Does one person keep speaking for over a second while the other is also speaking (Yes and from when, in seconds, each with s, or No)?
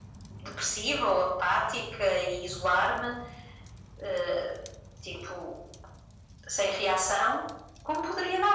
No